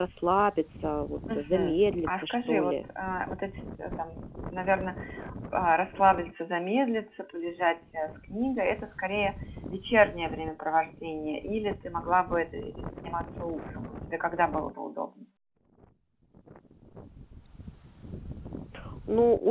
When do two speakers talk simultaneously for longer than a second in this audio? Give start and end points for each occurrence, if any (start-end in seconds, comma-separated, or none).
1.4-2.7